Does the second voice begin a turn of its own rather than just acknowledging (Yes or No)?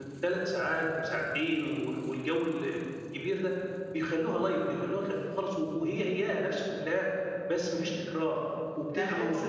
Yes